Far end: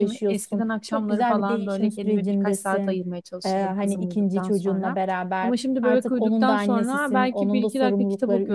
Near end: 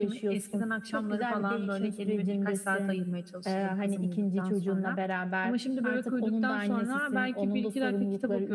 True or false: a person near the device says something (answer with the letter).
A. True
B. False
B